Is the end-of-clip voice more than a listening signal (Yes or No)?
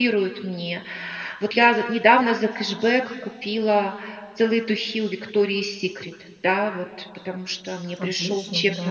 No